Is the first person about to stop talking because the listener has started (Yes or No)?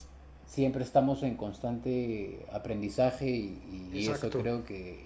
No